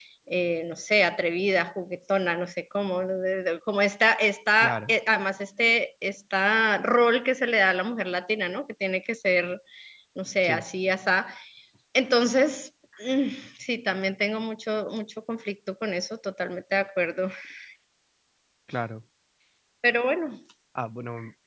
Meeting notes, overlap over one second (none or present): none